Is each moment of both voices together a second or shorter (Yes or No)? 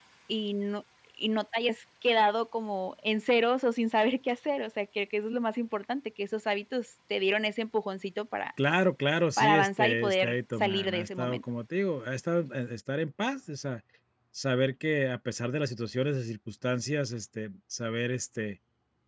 No